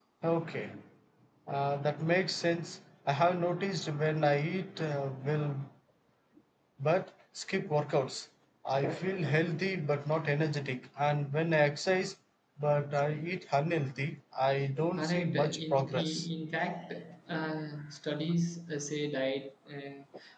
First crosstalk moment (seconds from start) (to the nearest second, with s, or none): 15 s